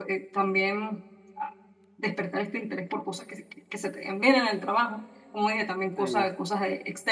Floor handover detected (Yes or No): No